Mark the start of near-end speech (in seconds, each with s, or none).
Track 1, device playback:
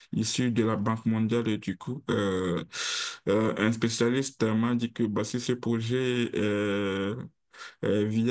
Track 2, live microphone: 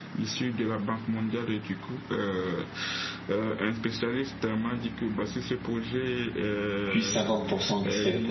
6.8 s